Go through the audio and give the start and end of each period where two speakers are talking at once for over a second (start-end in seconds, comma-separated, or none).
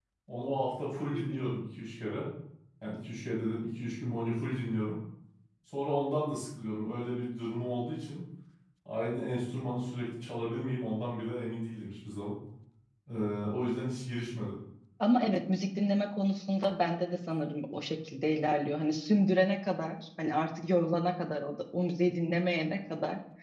none